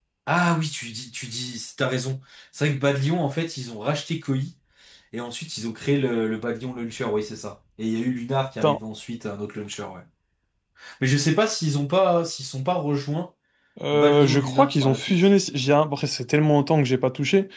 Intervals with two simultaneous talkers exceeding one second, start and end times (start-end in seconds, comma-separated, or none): 13.9-15.3